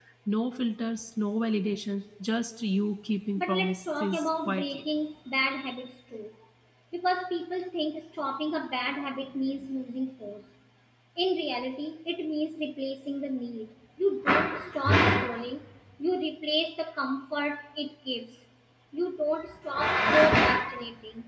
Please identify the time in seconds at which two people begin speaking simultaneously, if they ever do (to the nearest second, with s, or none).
3 s